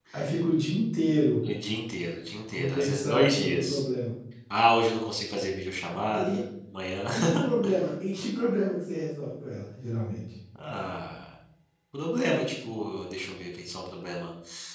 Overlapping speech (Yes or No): Yes